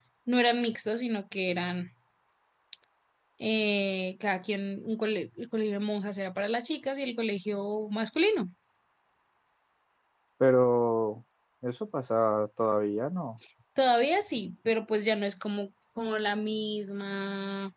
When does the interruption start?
none

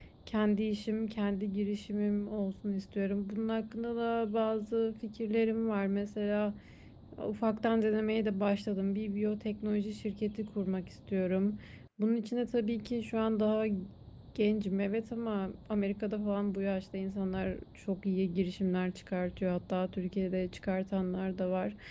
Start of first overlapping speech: none

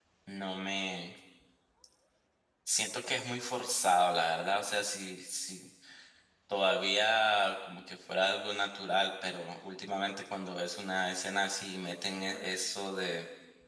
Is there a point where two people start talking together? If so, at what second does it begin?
none

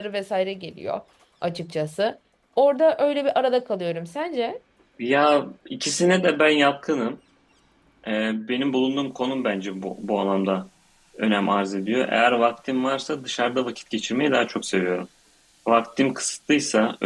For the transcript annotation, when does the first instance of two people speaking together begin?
none

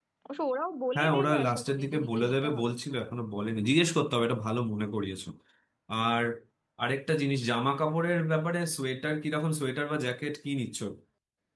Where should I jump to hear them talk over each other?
1 s

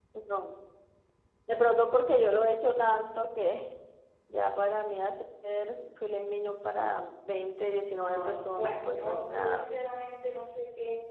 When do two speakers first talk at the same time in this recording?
8 s

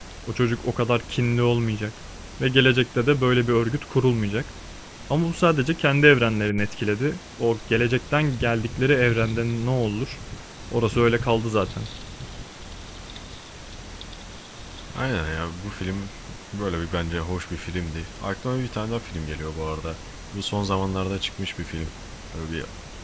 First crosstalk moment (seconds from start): none

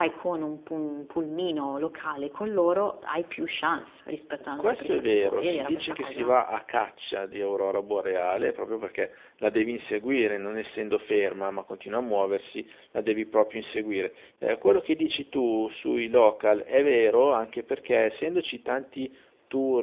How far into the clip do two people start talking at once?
5 s

